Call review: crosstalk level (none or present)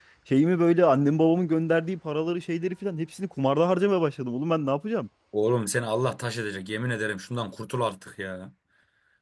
none